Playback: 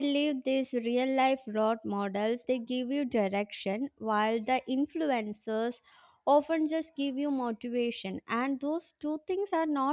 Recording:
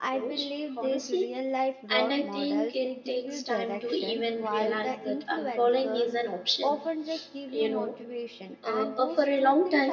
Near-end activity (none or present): present